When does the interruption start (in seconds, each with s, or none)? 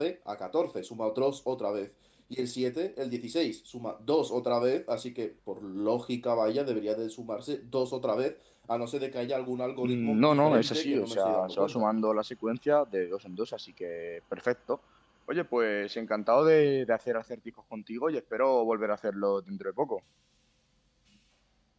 9.8 s